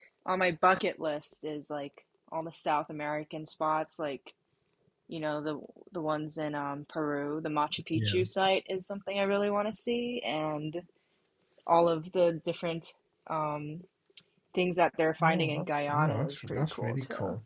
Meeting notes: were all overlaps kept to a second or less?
No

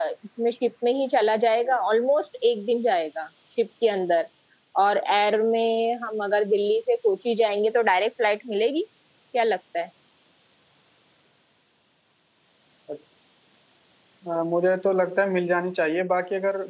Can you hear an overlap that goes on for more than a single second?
No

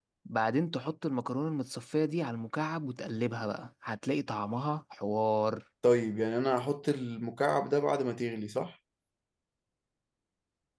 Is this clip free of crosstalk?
Yes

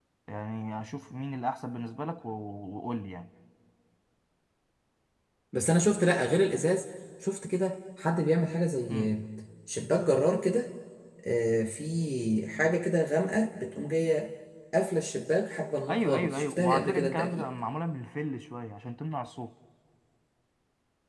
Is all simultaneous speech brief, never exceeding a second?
No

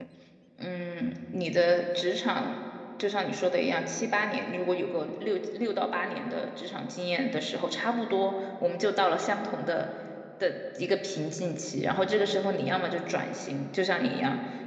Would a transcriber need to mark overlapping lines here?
No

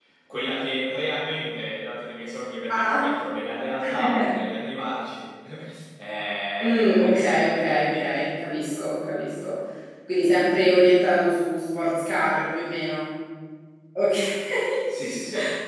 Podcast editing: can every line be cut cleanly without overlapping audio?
No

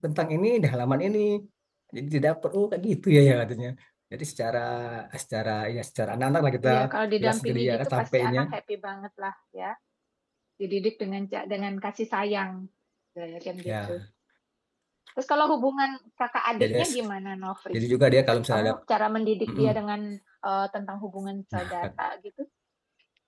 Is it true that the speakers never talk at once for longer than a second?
No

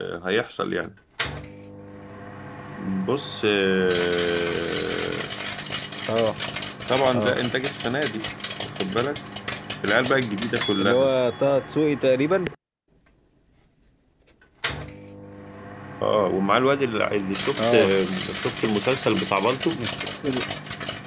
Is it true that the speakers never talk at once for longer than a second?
Yes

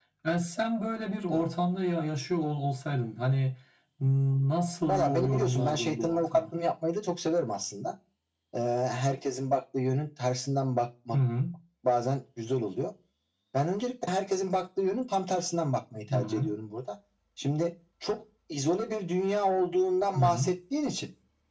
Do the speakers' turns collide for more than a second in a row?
Yes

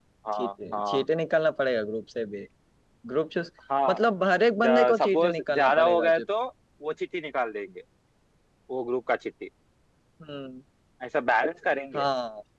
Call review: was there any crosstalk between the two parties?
Yes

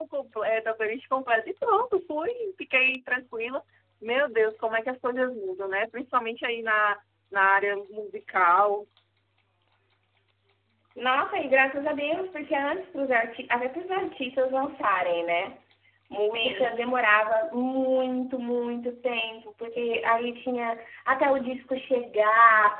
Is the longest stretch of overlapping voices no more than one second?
Yes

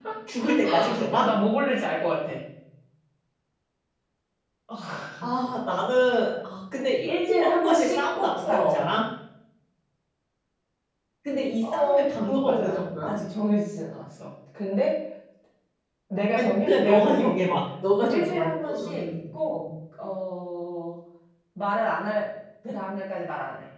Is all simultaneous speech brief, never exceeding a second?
No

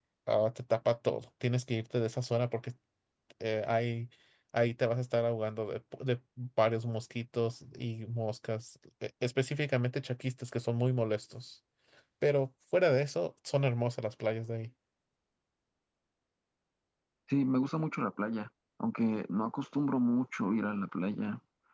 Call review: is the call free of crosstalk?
Yes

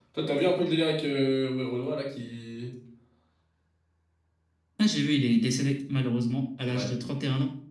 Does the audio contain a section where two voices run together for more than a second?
No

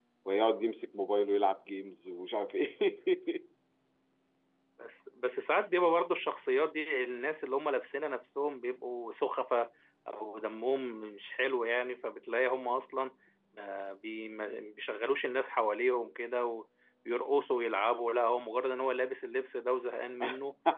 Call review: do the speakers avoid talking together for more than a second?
Yes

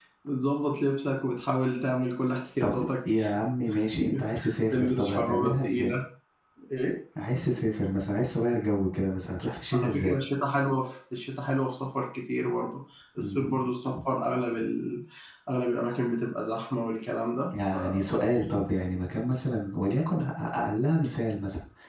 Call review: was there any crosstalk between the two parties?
Yes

